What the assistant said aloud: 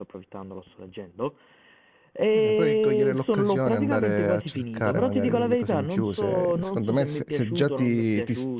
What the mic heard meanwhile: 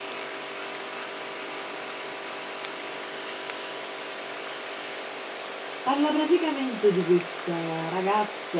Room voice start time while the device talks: 5.8 s

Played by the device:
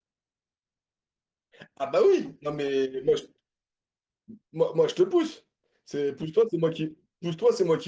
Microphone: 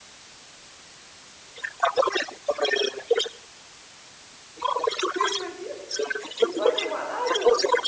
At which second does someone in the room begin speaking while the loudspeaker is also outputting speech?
5.2 s

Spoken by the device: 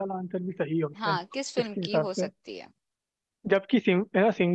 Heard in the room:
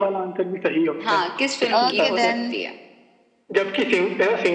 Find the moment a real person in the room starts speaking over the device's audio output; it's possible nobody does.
1.8 s

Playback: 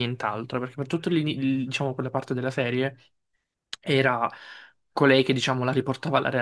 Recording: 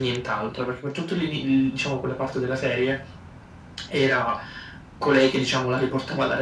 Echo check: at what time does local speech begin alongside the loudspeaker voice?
none

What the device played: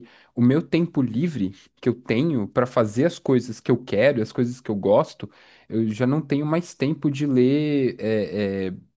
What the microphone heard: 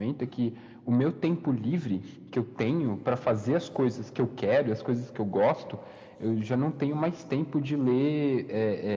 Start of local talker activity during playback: none

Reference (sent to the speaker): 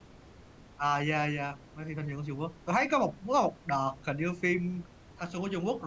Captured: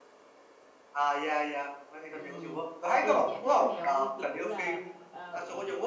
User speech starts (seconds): 2.1 s

